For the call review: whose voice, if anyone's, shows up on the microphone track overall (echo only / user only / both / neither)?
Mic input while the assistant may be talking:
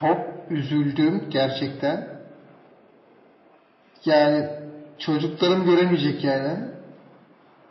echo only